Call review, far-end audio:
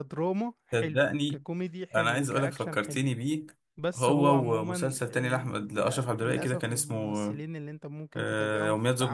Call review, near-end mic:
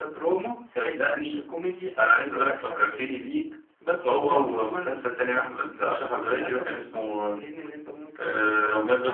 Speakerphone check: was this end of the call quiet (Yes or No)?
Yes